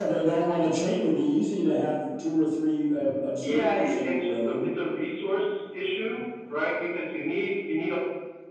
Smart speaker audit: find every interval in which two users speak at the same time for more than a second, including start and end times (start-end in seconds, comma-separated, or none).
3.4-4.6